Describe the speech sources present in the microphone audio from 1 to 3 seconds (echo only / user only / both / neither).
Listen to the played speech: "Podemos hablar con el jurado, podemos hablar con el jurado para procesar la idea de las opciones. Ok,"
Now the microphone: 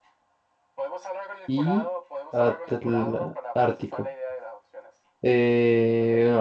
both